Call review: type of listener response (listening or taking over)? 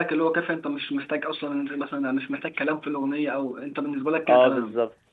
taking over